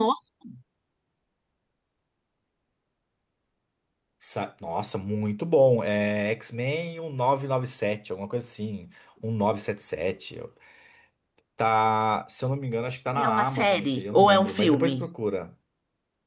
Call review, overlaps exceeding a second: present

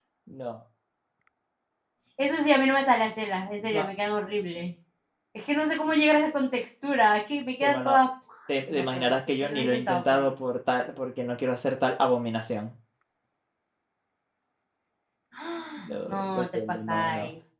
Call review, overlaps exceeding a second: present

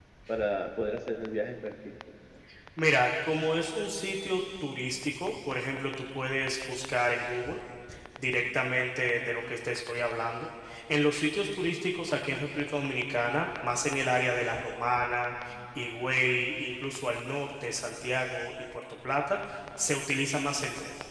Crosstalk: none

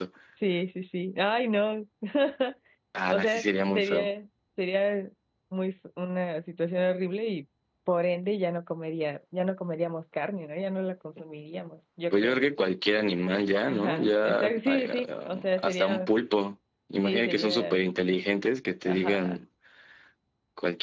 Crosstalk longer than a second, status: present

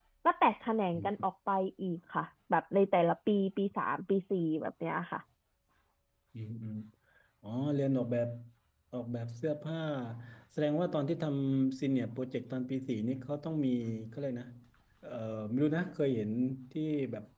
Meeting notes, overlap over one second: none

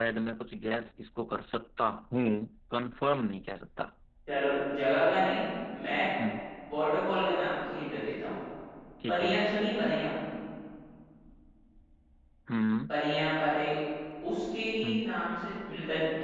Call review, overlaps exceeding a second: none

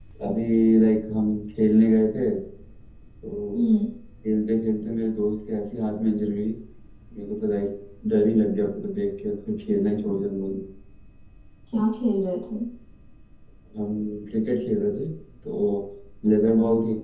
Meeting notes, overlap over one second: none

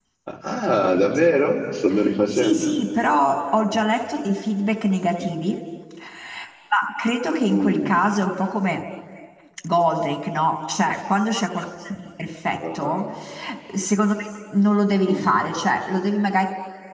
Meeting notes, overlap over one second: none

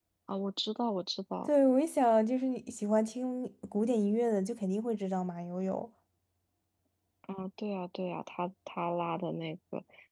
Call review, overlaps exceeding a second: none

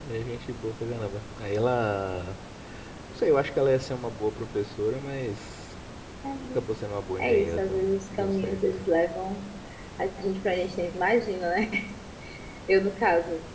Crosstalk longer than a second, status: present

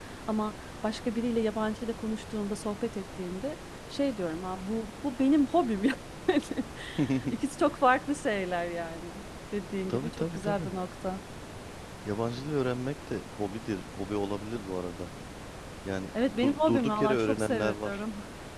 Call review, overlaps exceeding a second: present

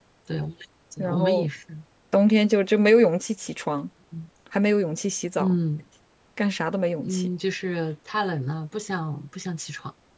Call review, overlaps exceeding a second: none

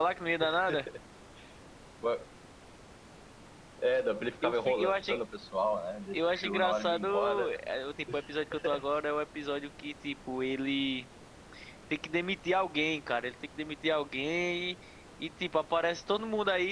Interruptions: present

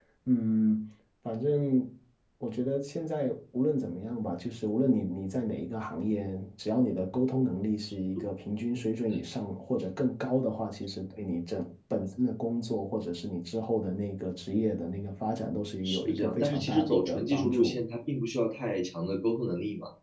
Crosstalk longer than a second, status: present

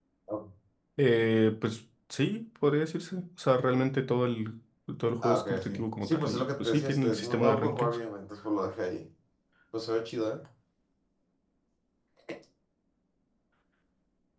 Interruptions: present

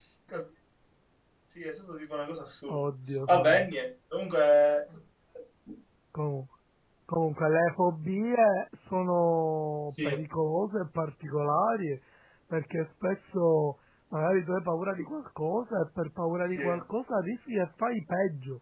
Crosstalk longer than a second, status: none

